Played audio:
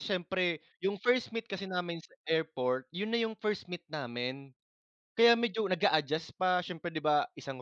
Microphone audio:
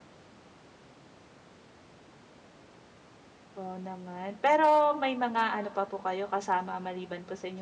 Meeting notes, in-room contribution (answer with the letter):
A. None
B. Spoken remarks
B